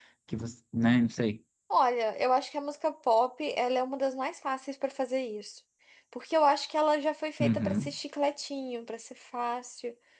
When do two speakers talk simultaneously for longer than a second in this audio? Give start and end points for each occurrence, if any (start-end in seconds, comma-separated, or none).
none